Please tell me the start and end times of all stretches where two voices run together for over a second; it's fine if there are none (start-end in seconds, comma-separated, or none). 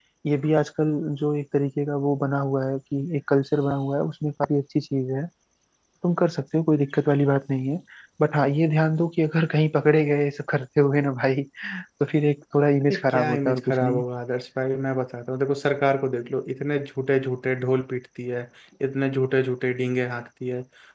12.8-14.0